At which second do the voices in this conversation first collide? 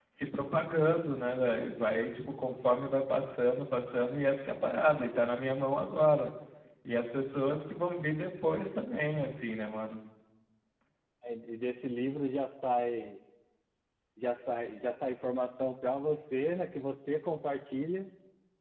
none

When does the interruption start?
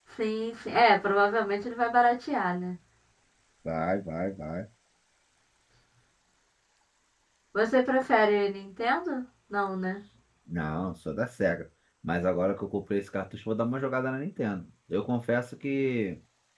none

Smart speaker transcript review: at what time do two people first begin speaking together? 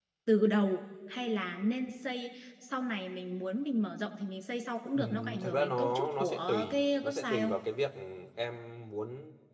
5.0 s

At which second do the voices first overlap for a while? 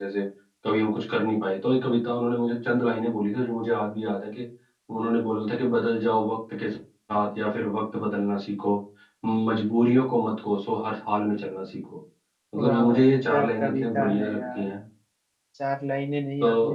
12.6 s

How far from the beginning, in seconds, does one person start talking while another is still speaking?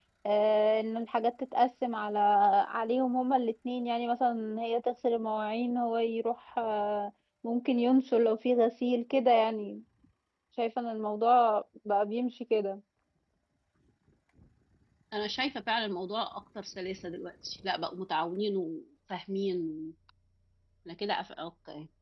none

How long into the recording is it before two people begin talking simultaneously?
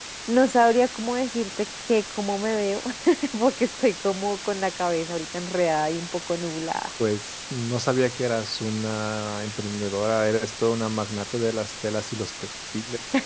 none

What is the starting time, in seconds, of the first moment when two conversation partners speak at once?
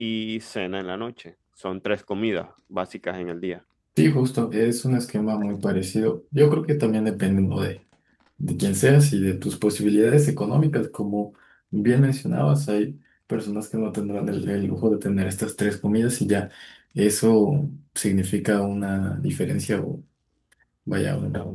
none

